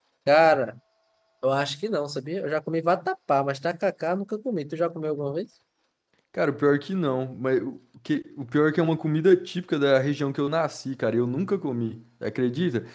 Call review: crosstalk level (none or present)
none